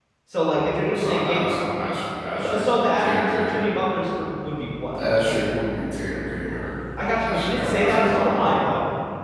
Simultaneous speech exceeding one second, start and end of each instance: 2.4-3.7, 7.2-8.6

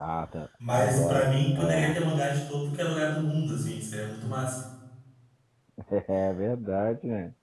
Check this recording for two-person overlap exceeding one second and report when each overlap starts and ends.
0.7-2.0

